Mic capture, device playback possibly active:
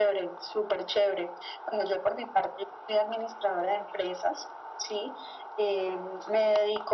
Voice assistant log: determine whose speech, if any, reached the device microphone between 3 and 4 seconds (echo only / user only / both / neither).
echo only